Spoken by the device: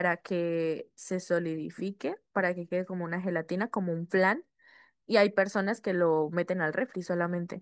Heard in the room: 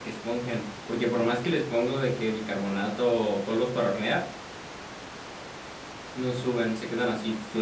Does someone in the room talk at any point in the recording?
Yes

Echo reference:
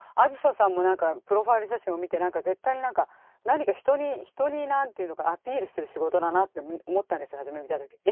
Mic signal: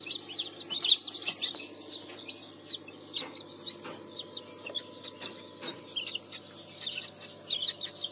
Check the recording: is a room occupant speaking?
No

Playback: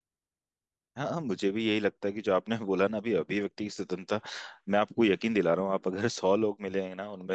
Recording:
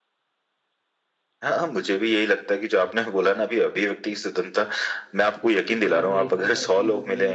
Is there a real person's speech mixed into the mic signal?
Yes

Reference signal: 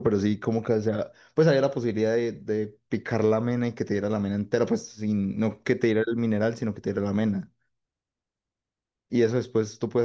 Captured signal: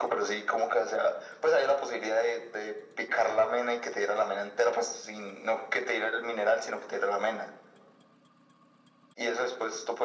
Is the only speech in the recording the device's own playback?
Yes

